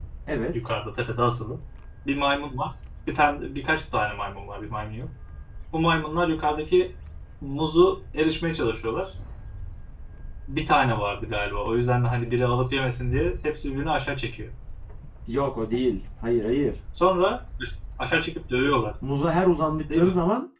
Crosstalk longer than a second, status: none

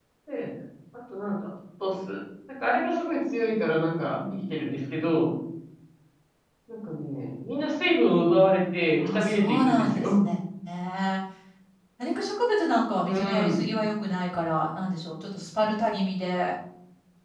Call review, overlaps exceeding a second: present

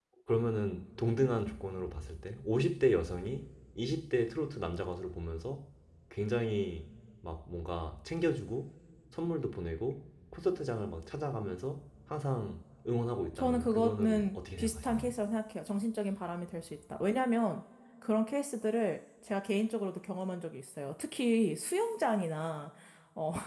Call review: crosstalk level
present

